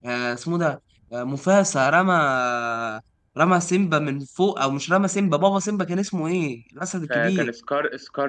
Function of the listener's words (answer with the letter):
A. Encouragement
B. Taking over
B